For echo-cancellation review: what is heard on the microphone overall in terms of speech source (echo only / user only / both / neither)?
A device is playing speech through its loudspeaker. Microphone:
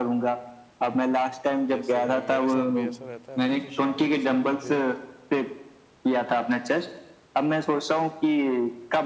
both